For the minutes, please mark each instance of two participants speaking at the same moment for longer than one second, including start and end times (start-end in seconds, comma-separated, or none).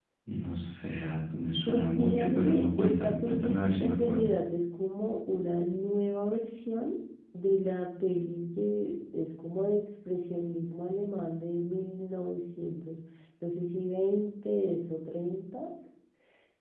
1.7-4.3